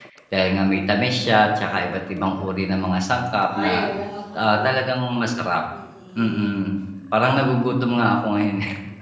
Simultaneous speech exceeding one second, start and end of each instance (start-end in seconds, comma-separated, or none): none